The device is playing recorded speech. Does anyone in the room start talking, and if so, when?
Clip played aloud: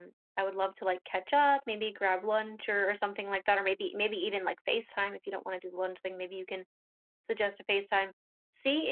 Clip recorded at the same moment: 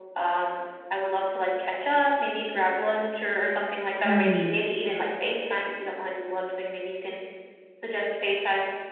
4 s

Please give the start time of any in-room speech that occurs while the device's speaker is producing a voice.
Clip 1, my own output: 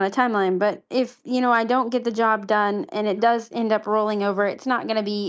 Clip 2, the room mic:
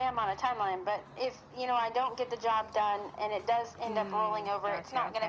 4 s

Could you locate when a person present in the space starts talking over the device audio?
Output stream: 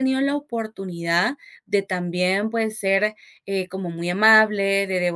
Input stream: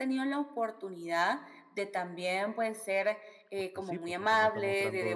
4 s

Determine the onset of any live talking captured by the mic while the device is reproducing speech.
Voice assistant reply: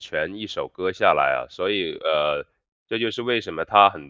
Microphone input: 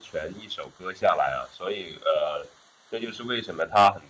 none

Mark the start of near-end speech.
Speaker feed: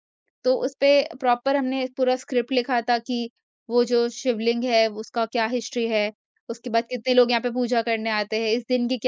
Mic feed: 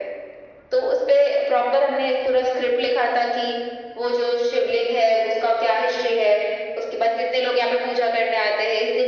none

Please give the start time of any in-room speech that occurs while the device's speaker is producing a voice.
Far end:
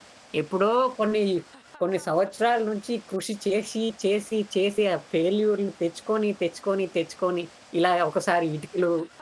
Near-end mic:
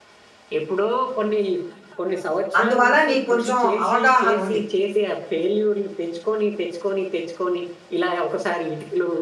3 s

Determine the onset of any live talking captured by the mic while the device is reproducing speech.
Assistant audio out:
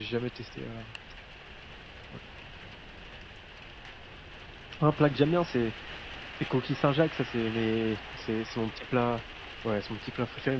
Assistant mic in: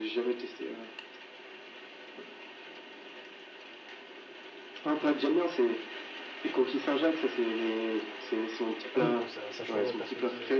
9 s

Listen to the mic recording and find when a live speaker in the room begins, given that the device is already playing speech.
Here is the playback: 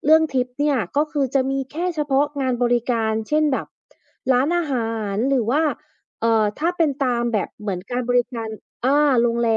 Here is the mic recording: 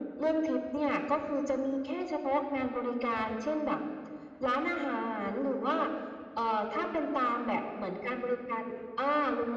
none

